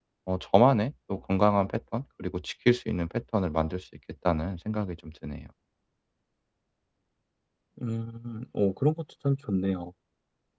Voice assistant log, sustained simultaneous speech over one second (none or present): none